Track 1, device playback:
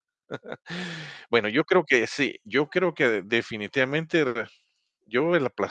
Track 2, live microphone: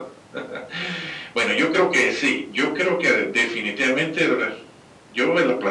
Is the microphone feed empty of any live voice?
Yes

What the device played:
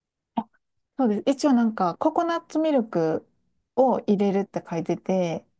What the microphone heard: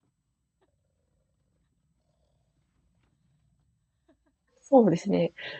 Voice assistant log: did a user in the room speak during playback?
Yes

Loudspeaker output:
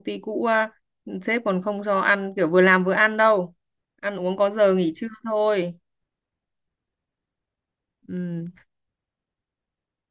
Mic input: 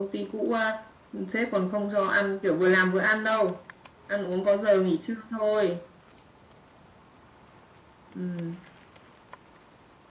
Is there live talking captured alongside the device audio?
No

